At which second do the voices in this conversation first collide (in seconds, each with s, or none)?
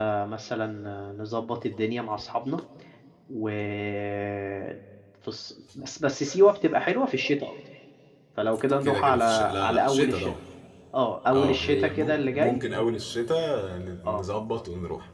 8.8 s